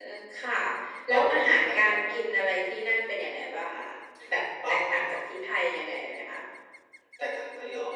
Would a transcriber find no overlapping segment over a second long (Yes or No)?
No